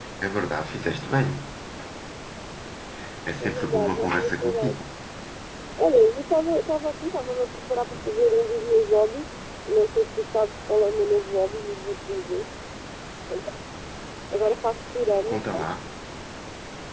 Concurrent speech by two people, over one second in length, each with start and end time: 3.4-4.8

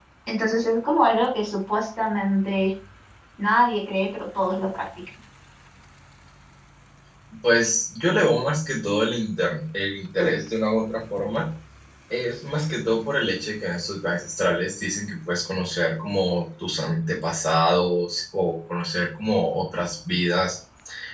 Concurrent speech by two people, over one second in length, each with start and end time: none

